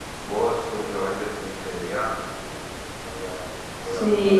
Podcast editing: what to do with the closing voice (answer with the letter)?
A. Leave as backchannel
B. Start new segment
B